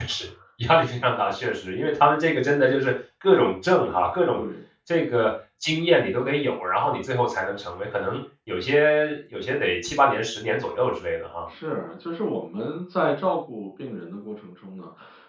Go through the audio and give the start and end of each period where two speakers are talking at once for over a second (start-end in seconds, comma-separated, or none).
none